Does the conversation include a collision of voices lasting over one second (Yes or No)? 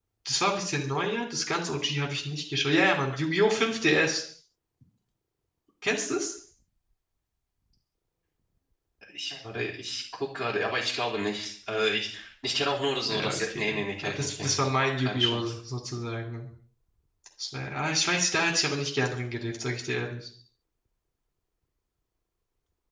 Yes